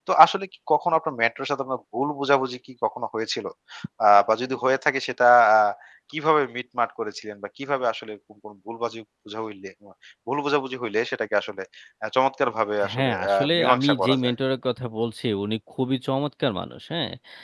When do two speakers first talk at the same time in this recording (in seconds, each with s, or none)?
12.9 s